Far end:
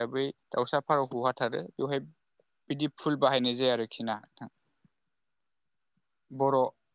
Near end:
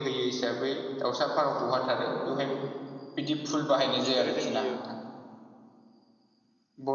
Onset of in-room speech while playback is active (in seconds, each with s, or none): 4.0 s